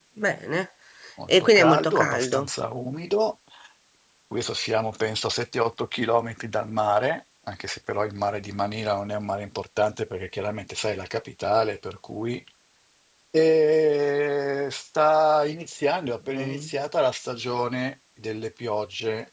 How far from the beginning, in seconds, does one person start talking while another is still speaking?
1.3 s

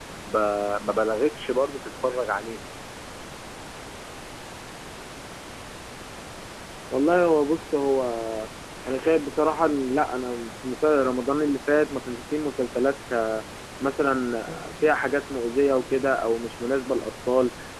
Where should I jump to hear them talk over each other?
none

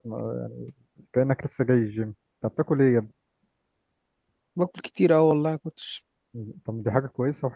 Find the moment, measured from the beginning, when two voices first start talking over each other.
none

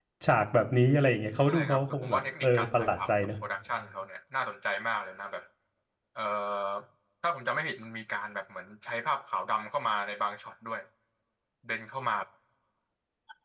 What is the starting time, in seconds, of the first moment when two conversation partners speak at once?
1.5 s

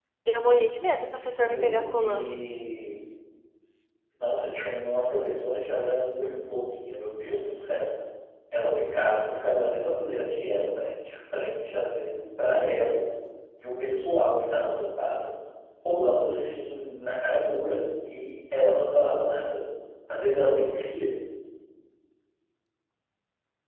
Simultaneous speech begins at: 1.1 s

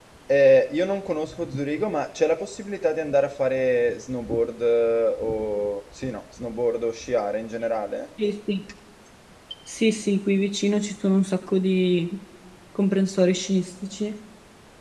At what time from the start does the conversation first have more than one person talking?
none

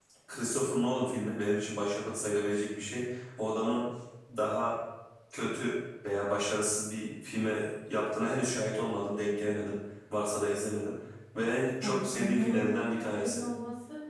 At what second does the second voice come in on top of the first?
11.8 s

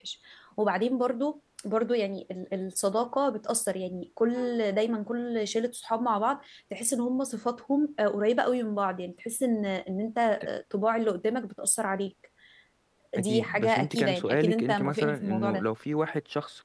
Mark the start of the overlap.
13.2 s

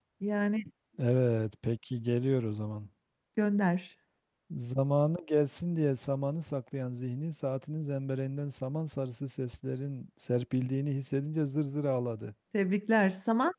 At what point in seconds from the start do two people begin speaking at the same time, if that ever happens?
none

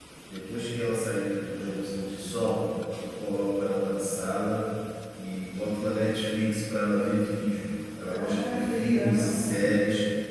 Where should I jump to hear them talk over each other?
8.0 s

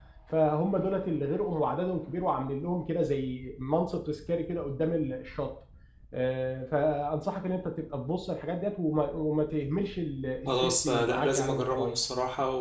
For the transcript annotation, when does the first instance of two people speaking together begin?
10.5 s

